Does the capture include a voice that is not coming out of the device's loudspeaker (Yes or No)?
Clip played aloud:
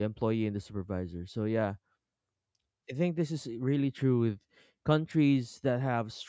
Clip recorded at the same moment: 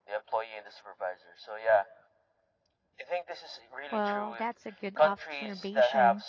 Yes